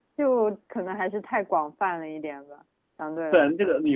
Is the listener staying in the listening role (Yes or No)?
No